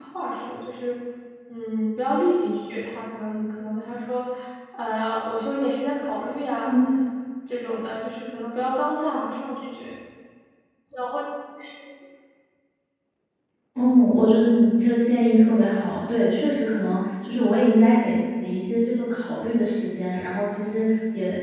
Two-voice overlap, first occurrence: none

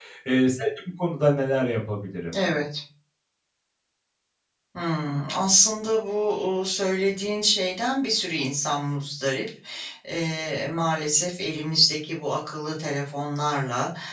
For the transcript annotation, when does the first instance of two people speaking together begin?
none

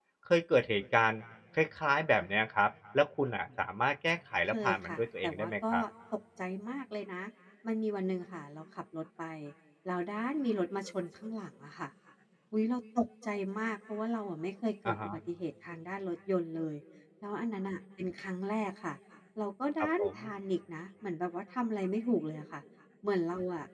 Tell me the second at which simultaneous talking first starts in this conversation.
4.5 s

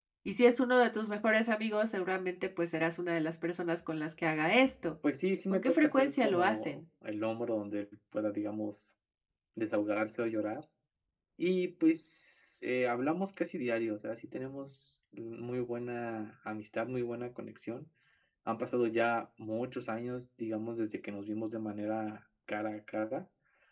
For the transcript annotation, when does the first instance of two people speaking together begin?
5.5 s

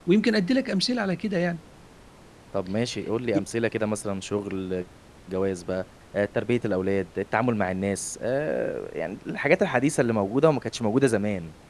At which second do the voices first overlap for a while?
none

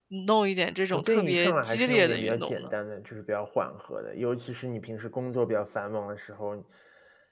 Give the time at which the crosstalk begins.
0.9 s

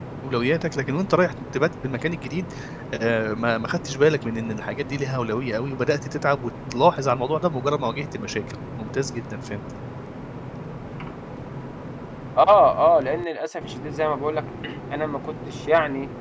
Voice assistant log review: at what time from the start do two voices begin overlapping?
none

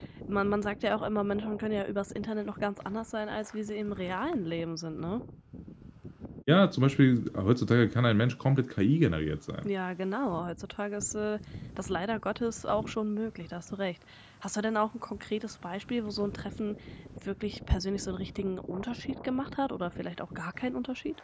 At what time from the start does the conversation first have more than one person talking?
none

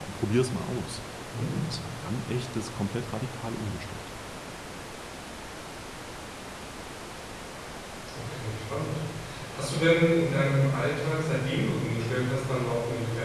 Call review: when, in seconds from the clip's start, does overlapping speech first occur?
none

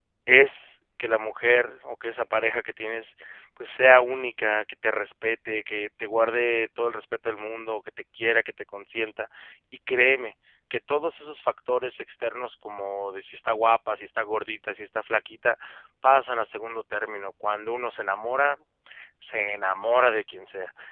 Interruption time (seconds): none

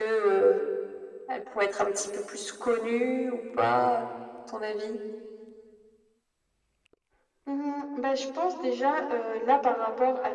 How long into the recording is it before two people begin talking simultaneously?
none

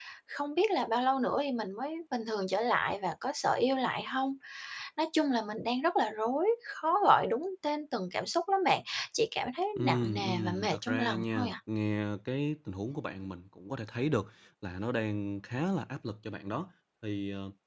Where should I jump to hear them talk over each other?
9.8 s

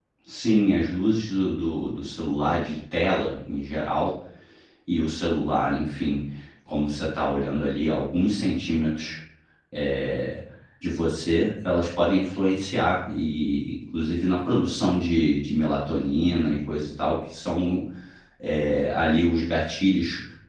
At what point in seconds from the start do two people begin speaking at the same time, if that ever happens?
none

